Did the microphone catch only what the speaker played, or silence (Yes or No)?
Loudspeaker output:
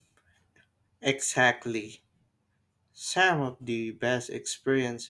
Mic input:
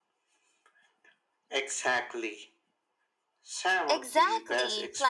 No